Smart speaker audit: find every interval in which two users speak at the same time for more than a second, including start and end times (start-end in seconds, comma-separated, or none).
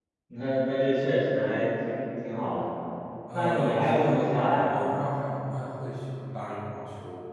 3.3-4.9